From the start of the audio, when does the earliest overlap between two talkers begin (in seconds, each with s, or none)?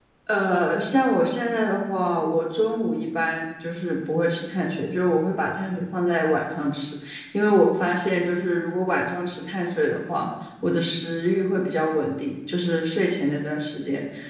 none